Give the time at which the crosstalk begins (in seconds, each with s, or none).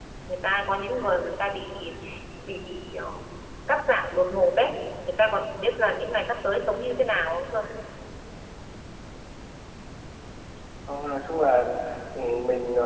none